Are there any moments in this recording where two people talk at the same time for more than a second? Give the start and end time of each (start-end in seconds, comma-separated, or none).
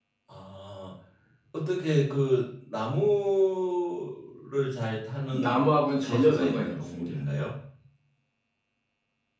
5.3-7.2